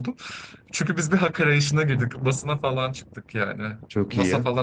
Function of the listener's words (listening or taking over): listening